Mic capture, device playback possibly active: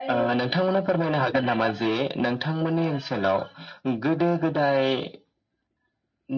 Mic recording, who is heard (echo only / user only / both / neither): echo only